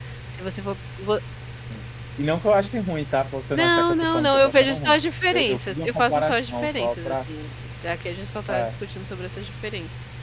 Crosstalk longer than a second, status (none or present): present